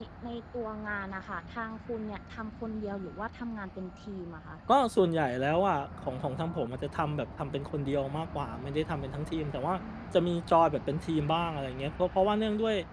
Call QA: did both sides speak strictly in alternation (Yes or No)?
Yes